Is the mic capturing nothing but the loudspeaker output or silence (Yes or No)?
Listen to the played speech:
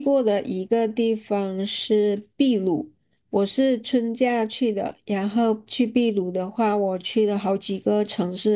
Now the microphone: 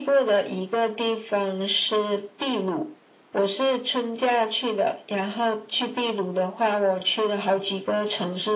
Yes